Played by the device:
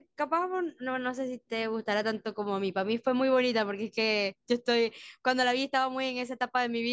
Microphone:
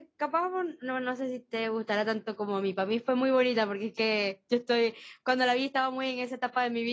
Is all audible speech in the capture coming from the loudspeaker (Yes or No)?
Yes